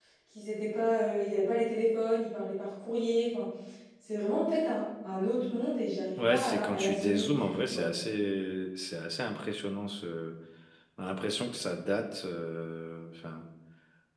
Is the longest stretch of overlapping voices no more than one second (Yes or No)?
No